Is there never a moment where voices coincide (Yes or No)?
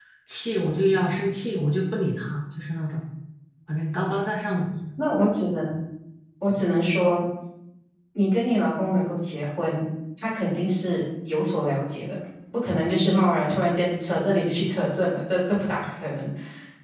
Yes